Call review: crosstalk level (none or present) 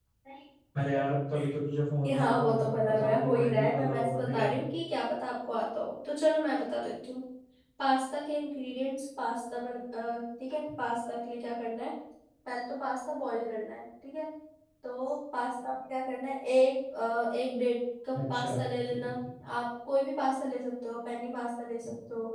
present